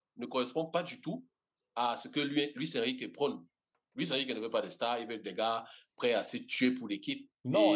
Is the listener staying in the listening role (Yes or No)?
No